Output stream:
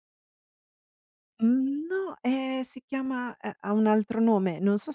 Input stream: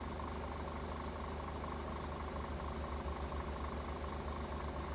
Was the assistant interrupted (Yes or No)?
No